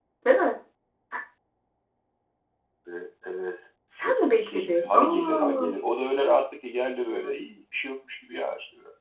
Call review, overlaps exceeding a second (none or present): present